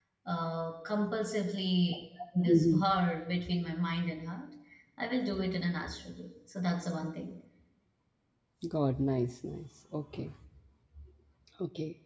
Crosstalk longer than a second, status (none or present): none